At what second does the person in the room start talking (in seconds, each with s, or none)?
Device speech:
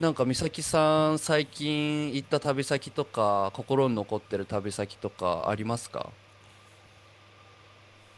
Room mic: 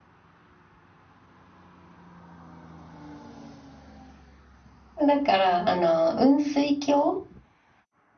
5.0 s